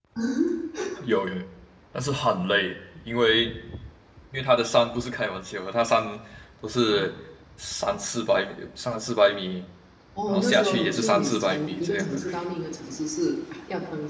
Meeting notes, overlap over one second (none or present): present